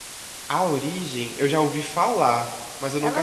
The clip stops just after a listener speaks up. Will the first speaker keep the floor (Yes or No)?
No